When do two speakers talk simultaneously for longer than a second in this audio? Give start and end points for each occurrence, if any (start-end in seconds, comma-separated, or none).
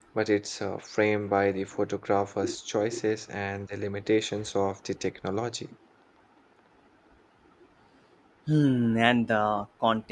none